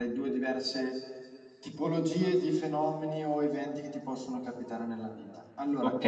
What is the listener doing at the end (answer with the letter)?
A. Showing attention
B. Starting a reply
A